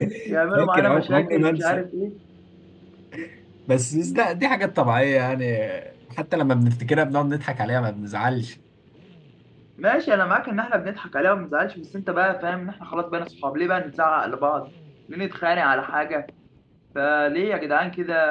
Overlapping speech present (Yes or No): Yes